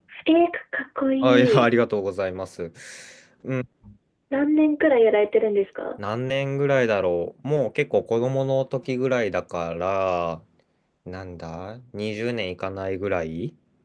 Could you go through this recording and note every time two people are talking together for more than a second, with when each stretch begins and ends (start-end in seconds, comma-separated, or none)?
none